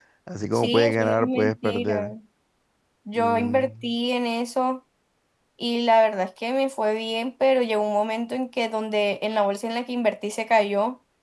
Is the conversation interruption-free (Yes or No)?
No